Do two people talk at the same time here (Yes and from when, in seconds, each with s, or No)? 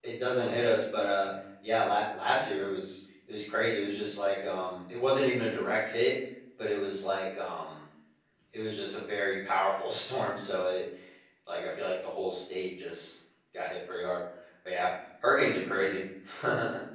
No